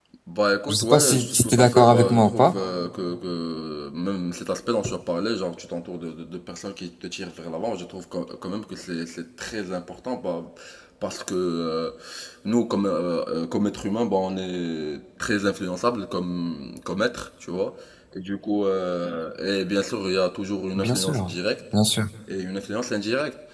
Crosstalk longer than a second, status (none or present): present